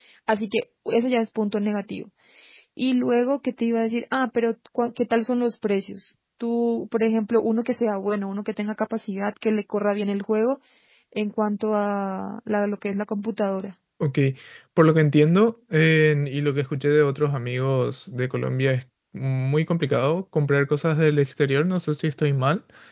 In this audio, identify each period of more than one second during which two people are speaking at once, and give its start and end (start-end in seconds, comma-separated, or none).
none